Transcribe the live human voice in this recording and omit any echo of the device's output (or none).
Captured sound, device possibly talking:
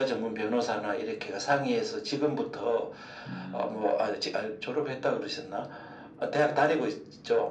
음,